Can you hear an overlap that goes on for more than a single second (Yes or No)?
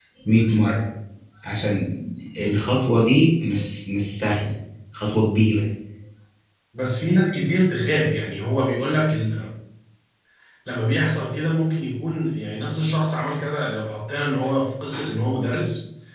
No